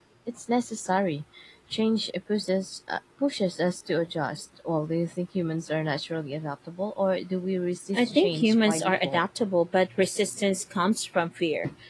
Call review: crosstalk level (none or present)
present